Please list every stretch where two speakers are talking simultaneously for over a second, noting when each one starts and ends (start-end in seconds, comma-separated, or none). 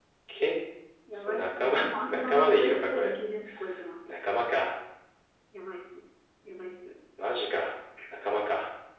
1.1-3.1